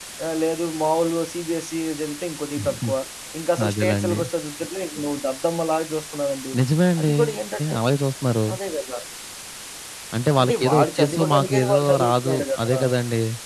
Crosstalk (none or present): present